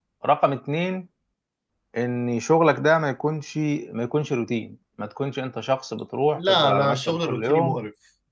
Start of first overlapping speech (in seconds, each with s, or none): 6.3 s